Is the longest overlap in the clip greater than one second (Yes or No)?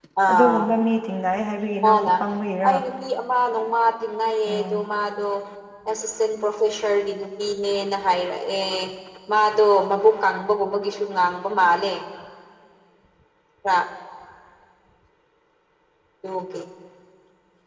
No